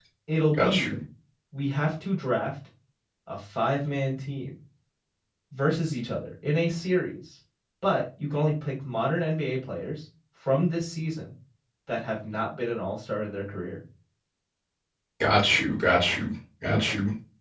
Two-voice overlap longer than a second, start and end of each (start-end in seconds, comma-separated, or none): none